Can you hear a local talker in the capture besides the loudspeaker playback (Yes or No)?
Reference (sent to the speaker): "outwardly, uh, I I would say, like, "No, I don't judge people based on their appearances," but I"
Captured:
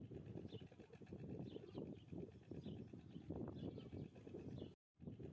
No